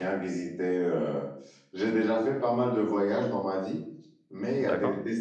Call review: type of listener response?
listening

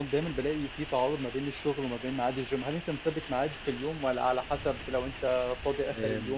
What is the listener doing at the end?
taking over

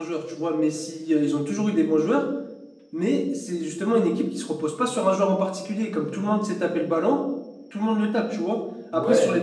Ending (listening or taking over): listening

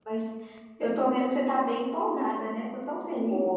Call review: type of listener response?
taking over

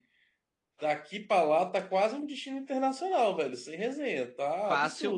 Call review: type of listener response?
taking over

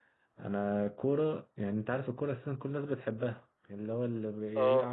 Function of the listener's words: listening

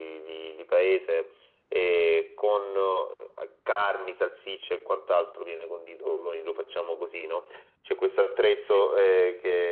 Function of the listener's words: listening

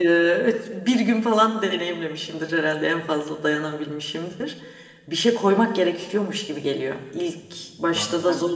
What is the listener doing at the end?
listening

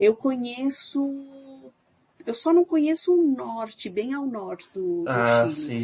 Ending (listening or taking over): listening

